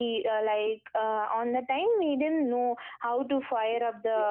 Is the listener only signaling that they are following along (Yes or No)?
Yes